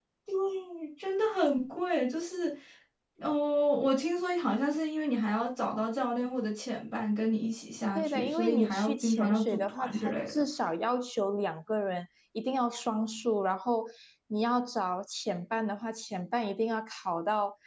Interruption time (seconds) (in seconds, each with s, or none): 8.0 s